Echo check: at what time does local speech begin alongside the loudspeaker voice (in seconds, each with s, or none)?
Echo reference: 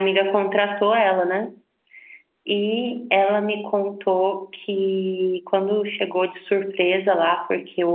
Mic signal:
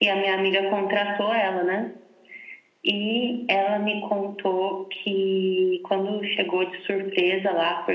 none